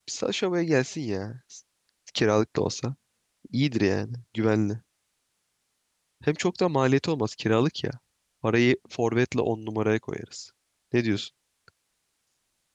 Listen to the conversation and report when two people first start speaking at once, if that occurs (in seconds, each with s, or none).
none